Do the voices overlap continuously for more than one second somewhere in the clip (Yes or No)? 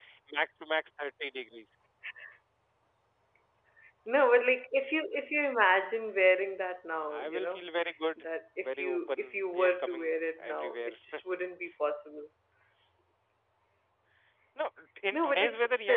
Yes